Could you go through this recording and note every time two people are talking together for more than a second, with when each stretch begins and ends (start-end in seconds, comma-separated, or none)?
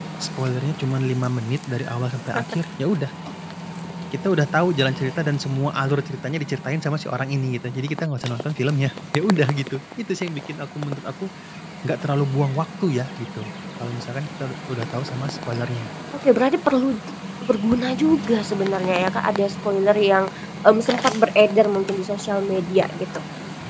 none